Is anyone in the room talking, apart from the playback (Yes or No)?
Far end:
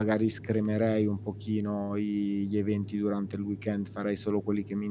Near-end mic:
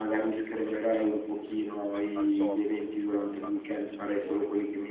Yes